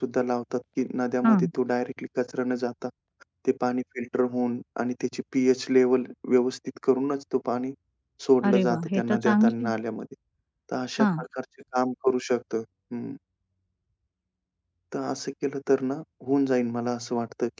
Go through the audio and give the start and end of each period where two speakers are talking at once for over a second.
8.5-9.7

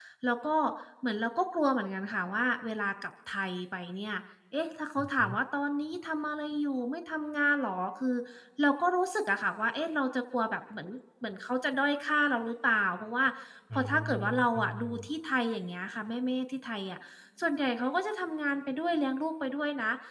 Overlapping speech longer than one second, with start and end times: 13.7-15.1

